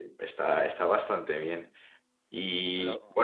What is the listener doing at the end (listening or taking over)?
listening